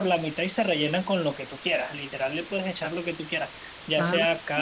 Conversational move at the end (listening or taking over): listening